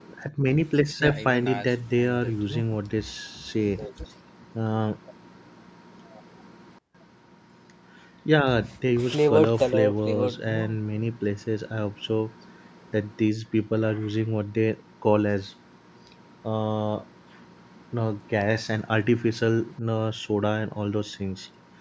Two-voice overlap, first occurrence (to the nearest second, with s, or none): 1 s